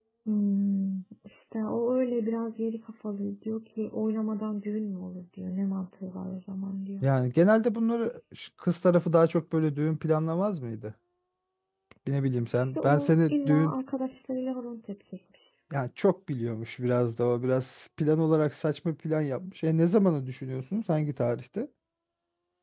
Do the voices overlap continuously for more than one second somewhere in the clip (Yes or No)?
Yes